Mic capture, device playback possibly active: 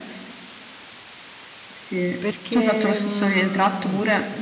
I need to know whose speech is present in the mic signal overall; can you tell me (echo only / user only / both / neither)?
both